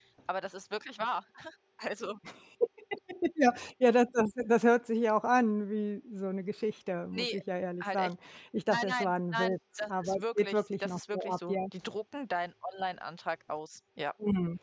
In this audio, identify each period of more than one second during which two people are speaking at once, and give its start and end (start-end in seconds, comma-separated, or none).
8.7-11.6